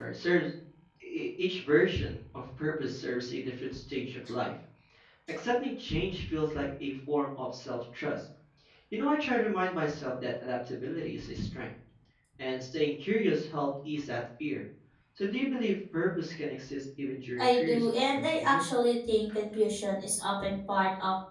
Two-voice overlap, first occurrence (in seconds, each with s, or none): 17.4 s